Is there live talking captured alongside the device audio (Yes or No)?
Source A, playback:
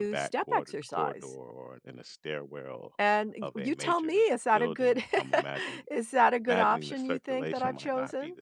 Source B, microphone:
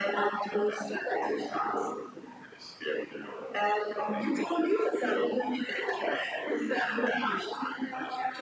No